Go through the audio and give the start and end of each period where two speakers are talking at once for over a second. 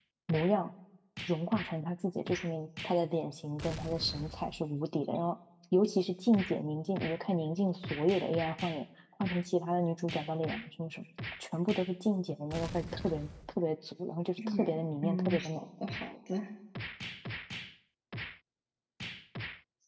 14.4-15.6

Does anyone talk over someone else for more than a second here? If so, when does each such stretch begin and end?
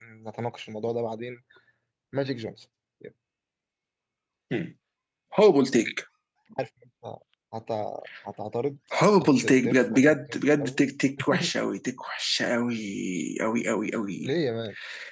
9.2-10.8

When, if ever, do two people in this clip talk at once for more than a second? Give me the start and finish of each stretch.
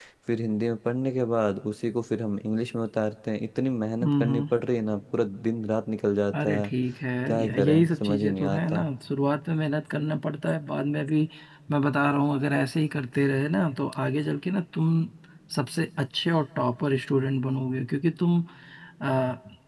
7.3-8.8

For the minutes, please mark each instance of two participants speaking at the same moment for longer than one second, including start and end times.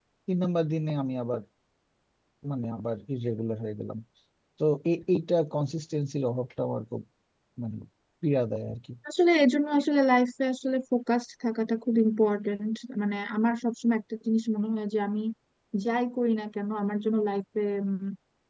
none

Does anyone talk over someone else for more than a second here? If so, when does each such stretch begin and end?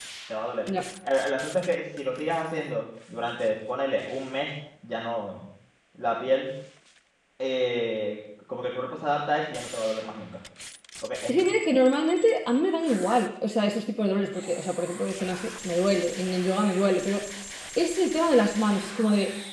none

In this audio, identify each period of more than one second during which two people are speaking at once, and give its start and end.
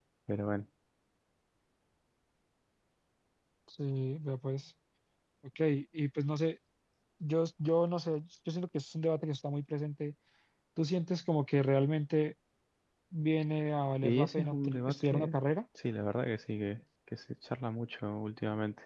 14.0-15.4

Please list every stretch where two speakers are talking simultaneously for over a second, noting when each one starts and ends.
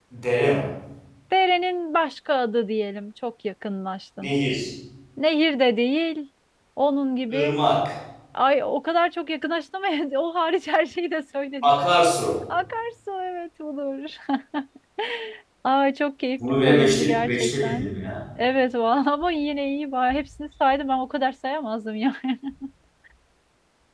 16.5-17.9

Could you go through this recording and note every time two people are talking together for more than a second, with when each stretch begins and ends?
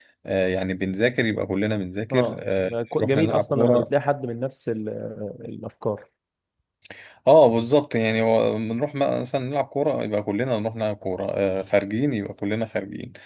2.1-3.9

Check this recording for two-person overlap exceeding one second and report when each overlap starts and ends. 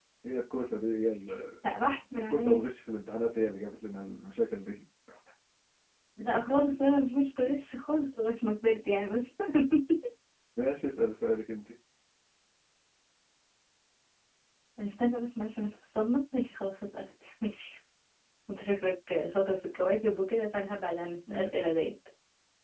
none

